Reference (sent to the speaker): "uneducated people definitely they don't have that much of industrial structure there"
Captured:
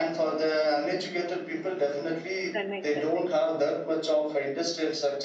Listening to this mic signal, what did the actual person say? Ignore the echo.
Chennai, Chennai.

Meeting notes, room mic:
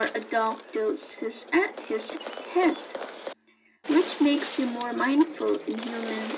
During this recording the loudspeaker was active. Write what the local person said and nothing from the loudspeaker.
none

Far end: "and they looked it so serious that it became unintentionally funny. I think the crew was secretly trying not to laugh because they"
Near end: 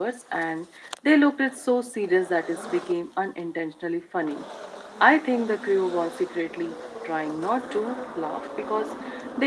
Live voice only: none

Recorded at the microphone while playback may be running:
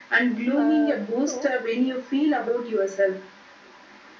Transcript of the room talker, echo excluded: uh, so

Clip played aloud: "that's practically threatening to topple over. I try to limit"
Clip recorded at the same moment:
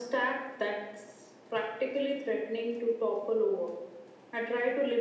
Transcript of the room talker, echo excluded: none

